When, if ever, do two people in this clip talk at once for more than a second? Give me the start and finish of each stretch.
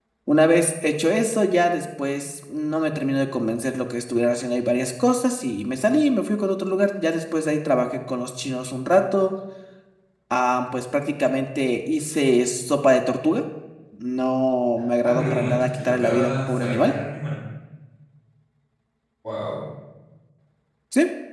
15.0-16.9

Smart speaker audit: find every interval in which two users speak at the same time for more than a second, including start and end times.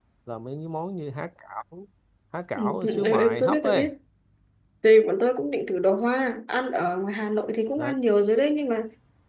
2.5-3.9

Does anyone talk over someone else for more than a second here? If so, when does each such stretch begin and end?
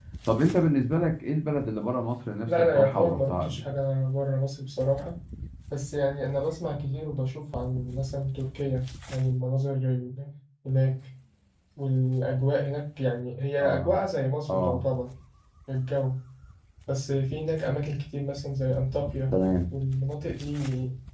2.5-3.8

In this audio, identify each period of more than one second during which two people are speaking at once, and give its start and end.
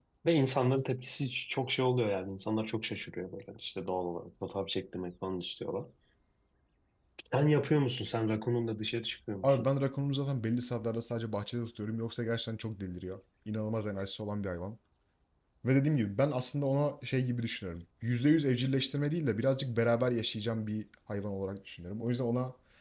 none

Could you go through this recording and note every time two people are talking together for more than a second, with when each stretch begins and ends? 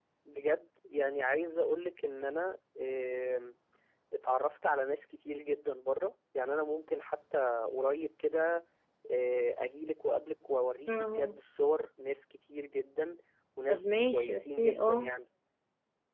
13.7-15.1

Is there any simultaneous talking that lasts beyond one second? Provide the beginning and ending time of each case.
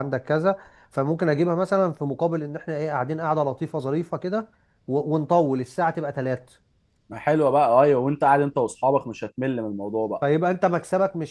none

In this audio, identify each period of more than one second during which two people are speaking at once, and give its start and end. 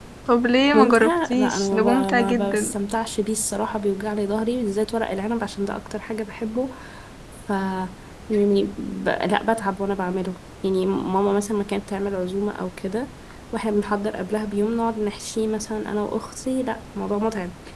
0.7-2.7

